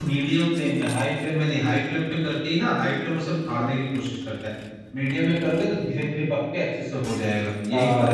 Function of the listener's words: taking over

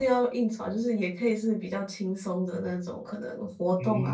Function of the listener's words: taking over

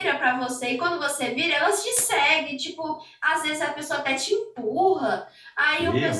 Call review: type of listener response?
listening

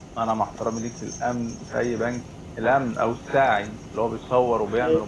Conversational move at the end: listening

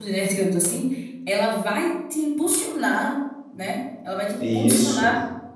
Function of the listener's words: listening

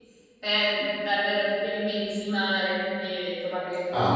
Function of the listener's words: taking over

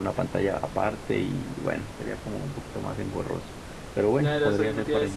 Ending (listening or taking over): taking over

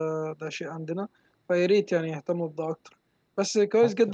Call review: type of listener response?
listening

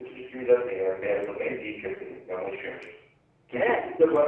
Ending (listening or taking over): listening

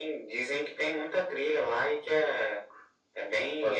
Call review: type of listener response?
taking over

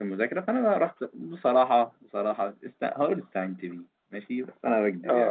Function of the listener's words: taking over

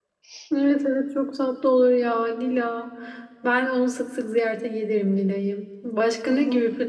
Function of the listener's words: listening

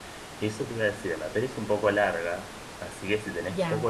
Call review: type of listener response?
listening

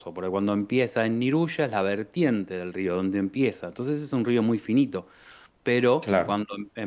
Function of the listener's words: listening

